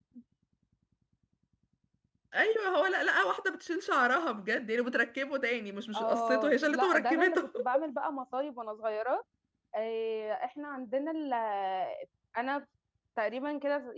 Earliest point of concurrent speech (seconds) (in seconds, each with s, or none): 5.9 s